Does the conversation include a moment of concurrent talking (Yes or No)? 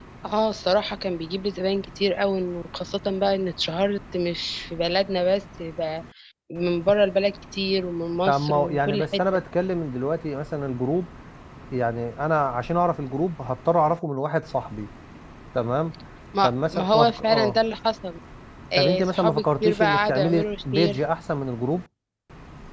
Yes